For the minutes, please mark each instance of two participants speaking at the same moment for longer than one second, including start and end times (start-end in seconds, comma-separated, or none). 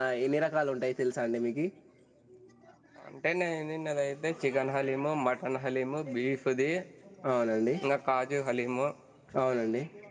none